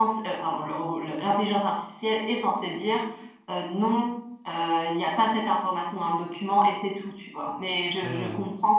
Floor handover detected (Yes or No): No